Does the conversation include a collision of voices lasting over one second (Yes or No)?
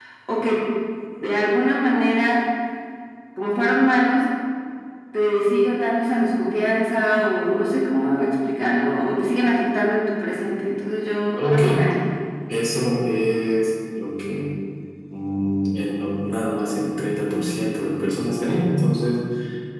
No